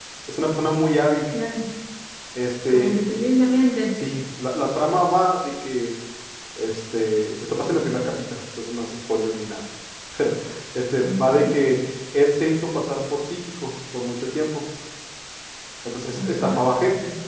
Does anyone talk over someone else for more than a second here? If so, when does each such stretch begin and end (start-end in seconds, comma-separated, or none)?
none